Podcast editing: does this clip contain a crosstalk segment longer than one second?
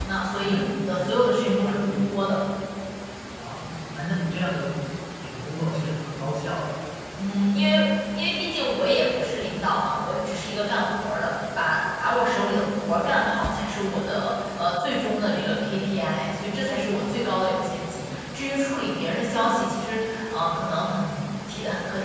Yes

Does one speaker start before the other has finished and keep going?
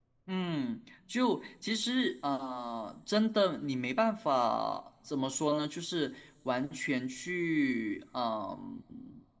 No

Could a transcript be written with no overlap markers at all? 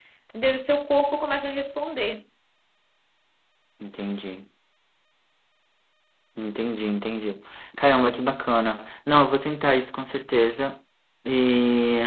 Yes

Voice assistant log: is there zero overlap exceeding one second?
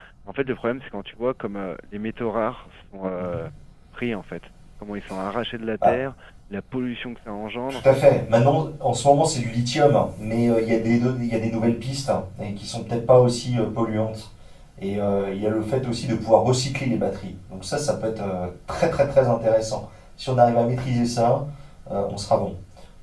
Yes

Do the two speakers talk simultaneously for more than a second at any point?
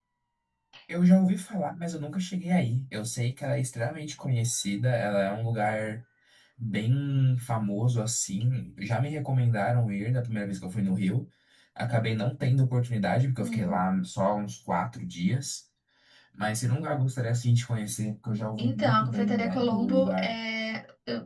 Yes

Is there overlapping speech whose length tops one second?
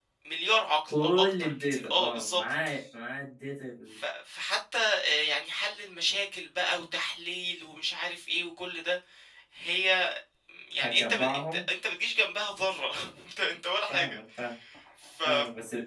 Yes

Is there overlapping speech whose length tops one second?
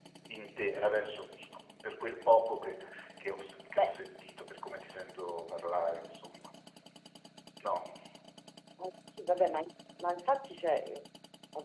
No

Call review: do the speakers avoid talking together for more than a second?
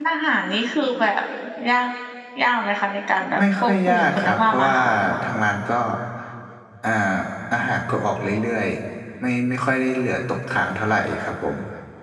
No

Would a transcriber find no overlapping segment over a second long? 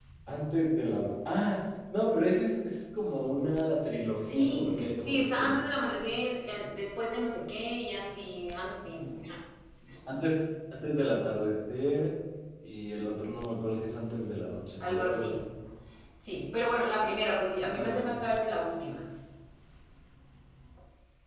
No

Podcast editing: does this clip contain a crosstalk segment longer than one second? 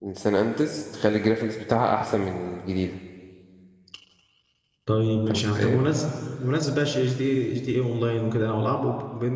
No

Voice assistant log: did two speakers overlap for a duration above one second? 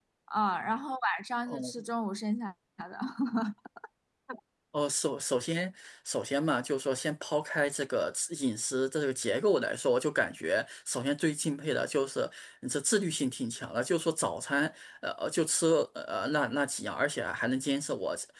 No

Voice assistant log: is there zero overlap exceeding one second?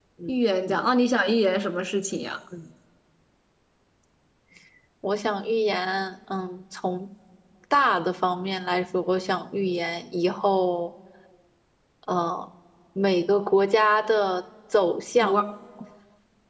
Yes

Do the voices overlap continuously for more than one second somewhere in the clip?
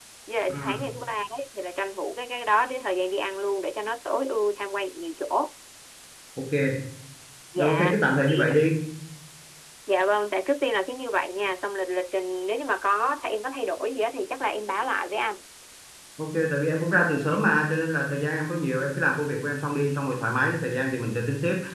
No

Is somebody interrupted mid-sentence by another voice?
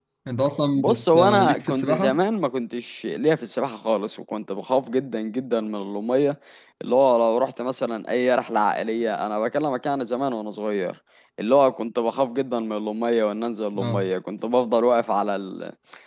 Yes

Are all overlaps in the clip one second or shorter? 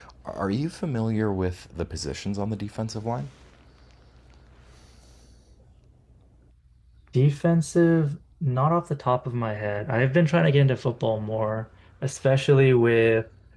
Yes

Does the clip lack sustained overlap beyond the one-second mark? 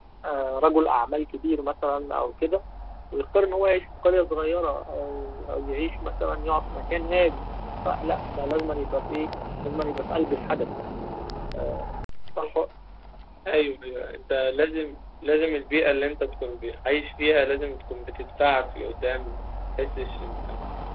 Yes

